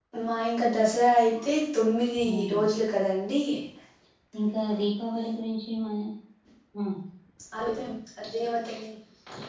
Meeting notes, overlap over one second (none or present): none